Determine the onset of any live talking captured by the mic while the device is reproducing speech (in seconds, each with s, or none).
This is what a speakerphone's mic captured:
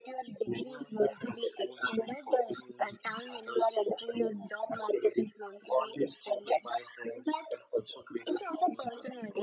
none